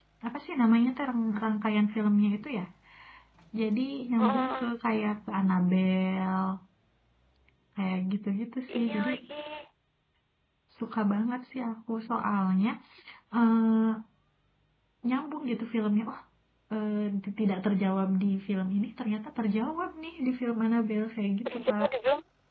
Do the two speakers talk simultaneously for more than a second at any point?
No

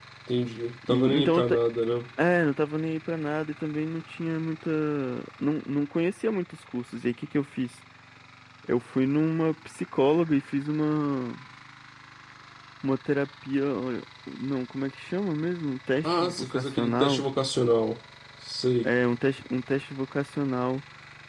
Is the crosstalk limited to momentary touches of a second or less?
No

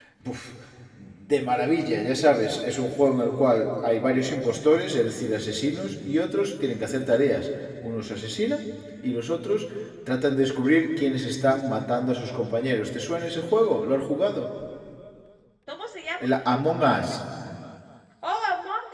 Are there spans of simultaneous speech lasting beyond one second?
No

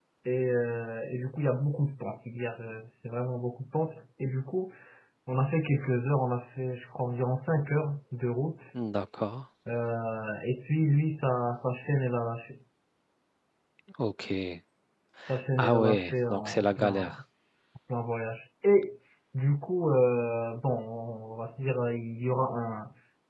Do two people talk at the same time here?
Yes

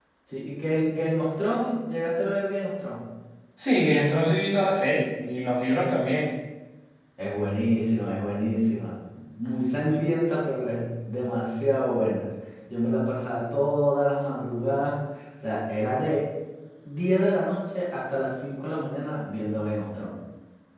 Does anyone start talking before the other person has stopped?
No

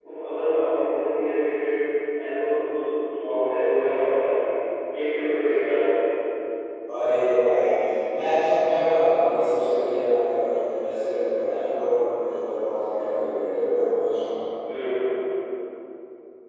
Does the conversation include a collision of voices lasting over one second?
No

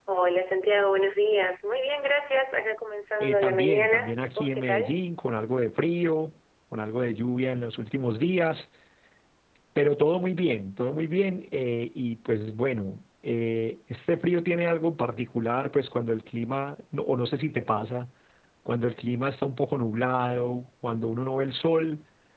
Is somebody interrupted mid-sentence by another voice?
Yes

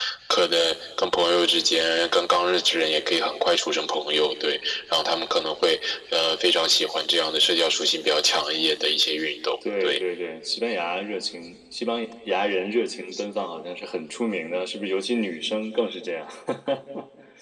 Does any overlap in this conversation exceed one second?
No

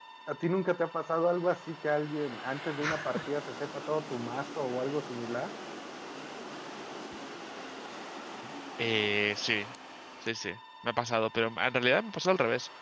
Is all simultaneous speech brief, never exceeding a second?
Yes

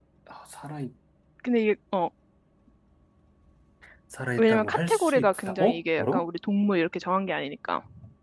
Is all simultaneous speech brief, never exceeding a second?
No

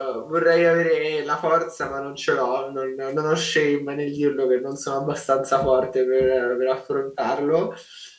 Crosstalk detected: No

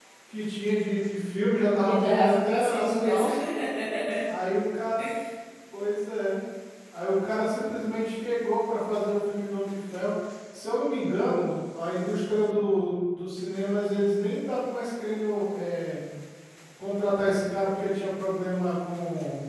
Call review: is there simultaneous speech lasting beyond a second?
Yes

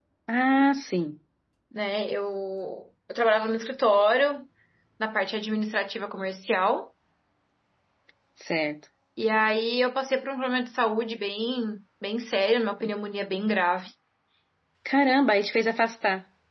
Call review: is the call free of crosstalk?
Yes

